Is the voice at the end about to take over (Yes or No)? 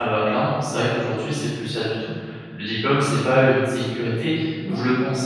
No